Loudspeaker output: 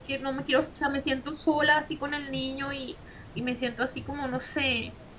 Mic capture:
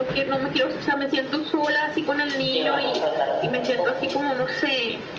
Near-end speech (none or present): present